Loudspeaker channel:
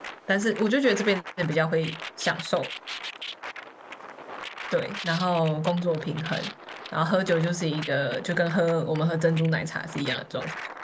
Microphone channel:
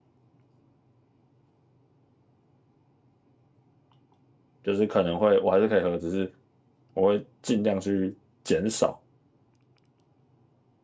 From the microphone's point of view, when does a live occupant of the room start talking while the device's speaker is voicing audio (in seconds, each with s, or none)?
4.6 s